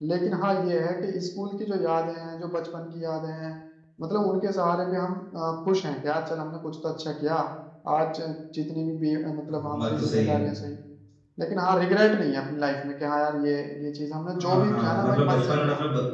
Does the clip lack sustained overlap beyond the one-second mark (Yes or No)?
No